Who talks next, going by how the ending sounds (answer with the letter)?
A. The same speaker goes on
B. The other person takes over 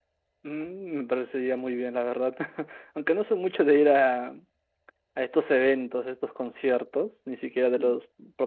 A